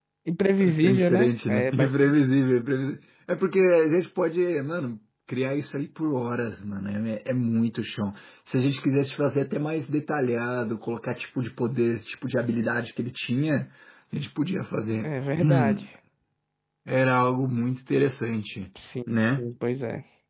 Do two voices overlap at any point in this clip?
Yes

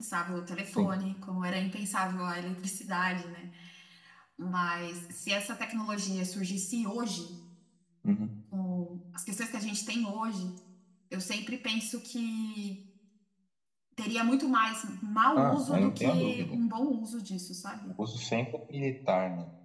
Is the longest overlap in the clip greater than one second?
Yes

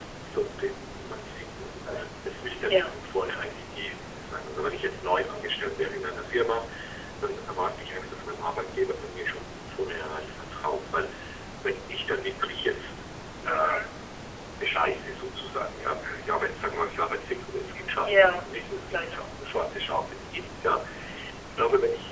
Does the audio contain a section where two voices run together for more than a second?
No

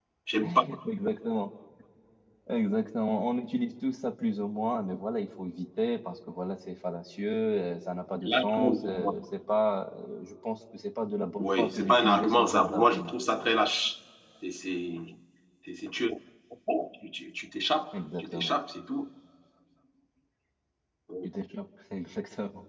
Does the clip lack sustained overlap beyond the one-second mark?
No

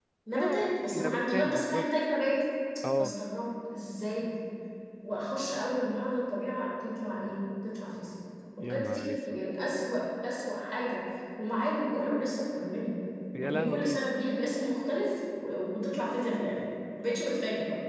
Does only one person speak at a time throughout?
No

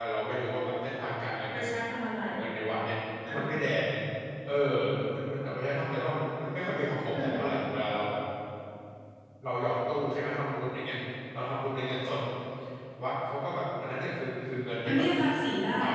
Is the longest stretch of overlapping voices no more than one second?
Yes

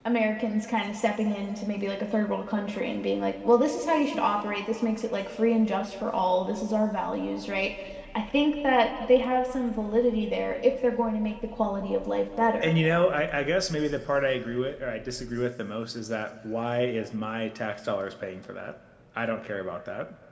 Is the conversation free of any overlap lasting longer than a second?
Yes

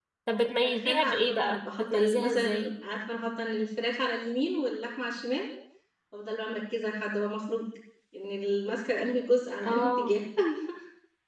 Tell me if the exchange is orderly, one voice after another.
No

